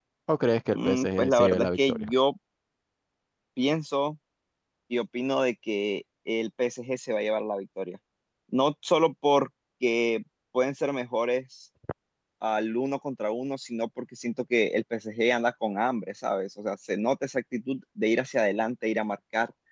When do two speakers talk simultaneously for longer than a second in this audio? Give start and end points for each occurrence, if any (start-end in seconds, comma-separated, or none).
0.7-2.1